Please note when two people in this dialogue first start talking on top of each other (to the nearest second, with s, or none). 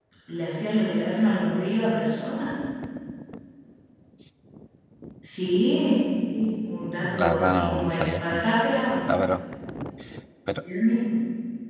7 s